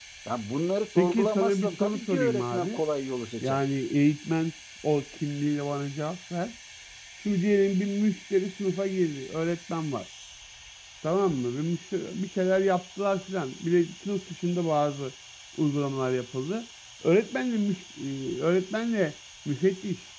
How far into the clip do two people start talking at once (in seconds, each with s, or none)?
0.9 s